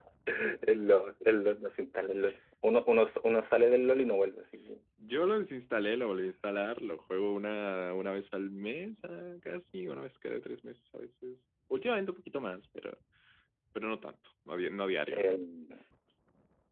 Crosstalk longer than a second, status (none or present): none